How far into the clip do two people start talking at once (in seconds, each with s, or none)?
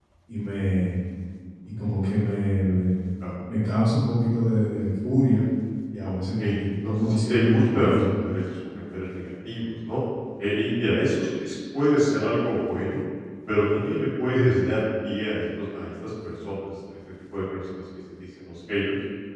6.0 s